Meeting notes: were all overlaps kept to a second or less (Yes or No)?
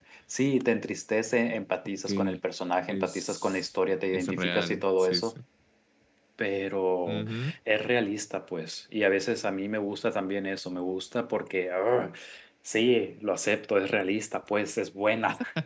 No